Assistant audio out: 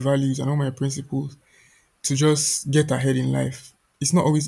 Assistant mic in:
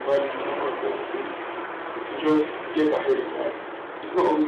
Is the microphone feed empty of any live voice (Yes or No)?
Yes